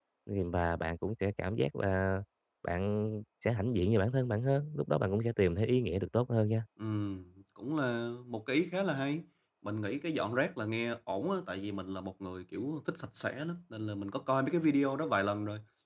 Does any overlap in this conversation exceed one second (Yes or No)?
No